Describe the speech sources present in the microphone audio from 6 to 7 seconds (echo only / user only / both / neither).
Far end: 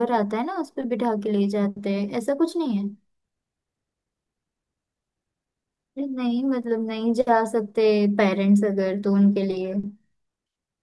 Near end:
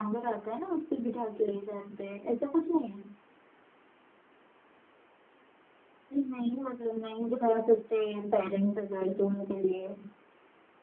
echo only